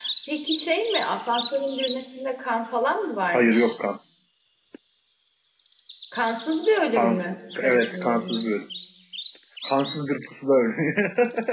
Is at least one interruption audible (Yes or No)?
Yes